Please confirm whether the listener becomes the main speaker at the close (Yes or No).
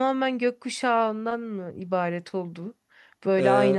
No